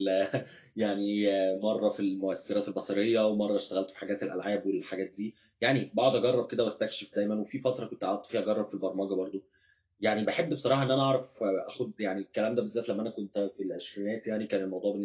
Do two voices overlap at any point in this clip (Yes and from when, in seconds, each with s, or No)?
No